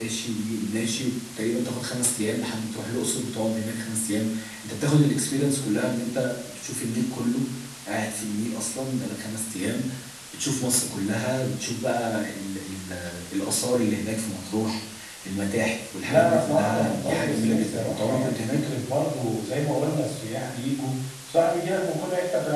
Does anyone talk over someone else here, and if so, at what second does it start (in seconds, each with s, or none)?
16.0 s